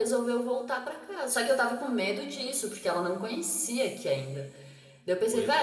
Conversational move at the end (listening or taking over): listening